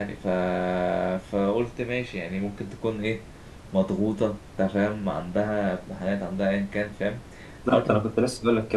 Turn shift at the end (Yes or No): Yes